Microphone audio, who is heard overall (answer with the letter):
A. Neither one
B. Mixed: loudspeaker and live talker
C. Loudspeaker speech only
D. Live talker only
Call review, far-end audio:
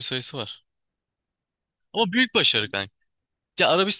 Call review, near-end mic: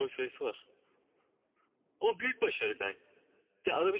C